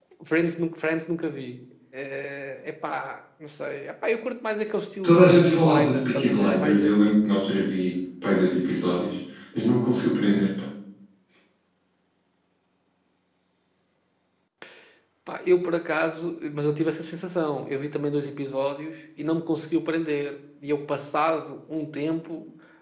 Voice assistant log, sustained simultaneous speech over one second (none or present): present